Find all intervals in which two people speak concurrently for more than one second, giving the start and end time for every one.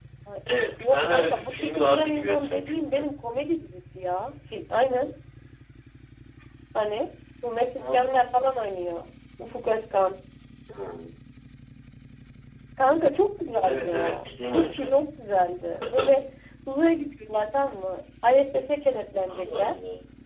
0.8-3.0, 13.6-15.0

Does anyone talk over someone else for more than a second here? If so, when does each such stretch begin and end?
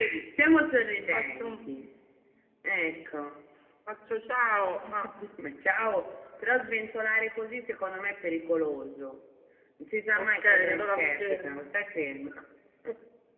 10.2-11.7

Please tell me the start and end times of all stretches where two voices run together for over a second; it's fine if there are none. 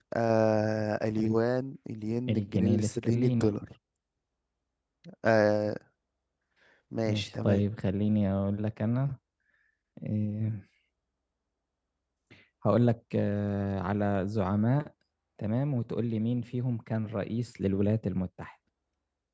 2.3-3.5

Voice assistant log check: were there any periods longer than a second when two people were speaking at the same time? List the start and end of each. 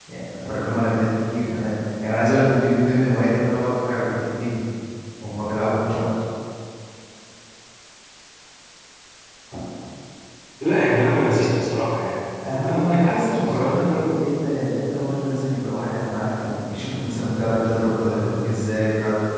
12.5-14.1

